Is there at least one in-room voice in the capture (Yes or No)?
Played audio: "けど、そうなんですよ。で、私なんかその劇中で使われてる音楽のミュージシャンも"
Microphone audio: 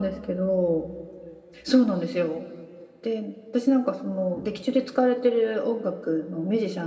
No